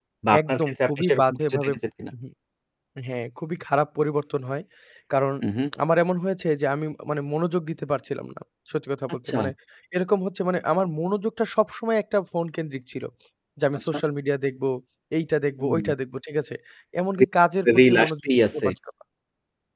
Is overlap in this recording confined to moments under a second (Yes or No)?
No